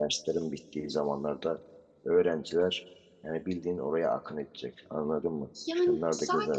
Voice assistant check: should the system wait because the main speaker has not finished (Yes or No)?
No